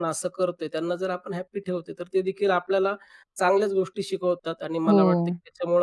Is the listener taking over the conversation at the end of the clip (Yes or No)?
No